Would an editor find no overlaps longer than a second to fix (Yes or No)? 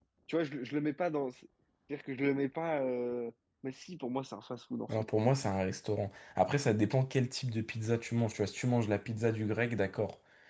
Yes